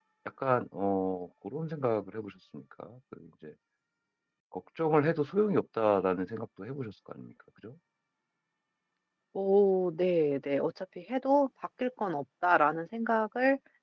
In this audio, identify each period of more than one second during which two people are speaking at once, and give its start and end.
none

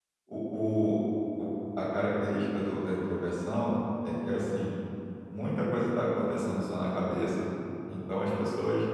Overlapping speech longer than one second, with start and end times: none

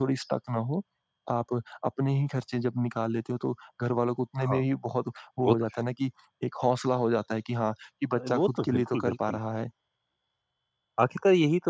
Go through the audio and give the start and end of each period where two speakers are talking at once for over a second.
8.1-9.4

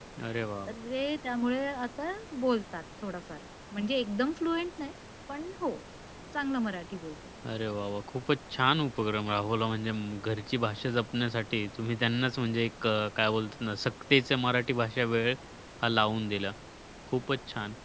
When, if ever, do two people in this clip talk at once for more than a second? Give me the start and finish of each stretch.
none

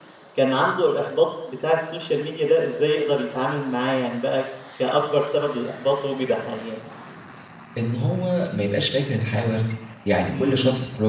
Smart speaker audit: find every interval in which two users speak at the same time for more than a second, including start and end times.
none

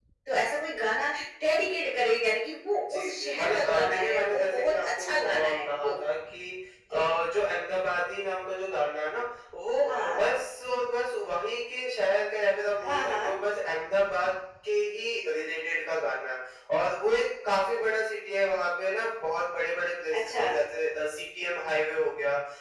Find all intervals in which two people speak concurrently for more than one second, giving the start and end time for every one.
2.8-5.9

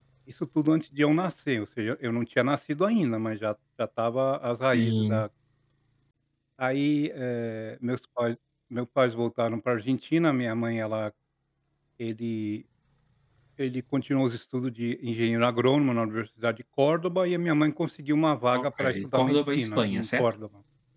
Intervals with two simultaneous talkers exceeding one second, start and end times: 18.5-20.2

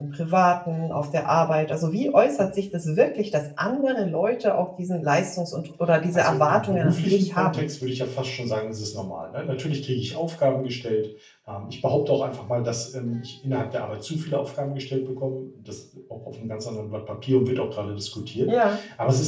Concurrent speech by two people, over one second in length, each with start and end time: 6.1-7.7

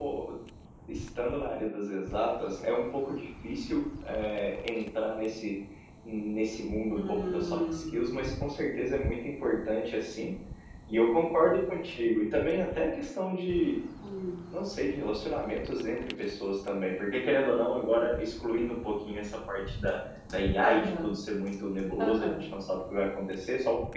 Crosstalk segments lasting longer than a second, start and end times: 7.0-8.6

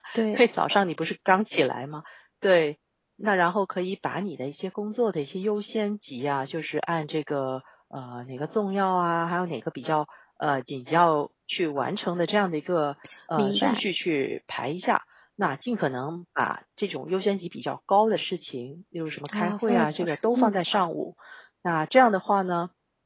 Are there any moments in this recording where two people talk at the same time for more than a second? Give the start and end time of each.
19.3-20.6

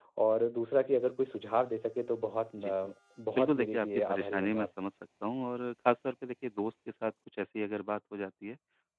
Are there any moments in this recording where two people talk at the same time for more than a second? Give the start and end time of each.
3.4-4.7

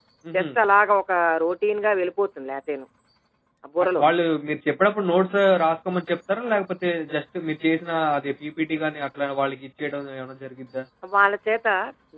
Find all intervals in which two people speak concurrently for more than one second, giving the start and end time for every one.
none

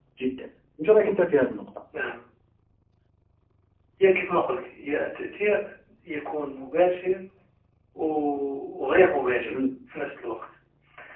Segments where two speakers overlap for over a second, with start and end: none

